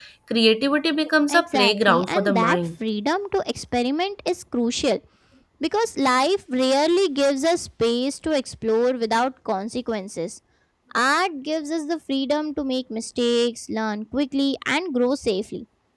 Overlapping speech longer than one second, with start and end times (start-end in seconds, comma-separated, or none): 1.3-2.6